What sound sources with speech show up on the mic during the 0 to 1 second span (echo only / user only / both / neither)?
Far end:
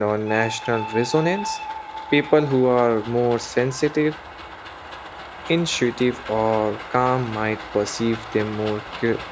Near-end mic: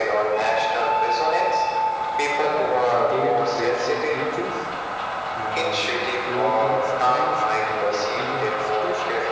echo only